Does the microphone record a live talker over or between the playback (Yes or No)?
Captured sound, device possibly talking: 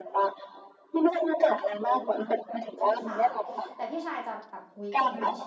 Yes